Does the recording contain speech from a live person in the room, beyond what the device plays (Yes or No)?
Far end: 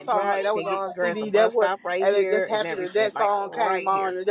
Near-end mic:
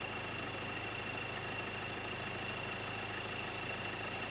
No